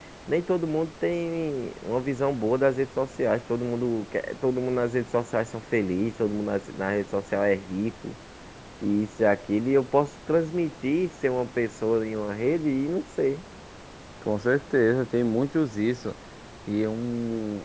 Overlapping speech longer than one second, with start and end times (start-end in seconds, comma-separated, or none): none